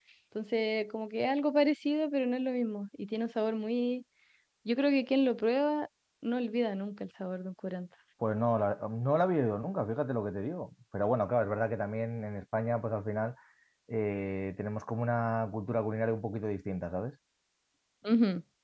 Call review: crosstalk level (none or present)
none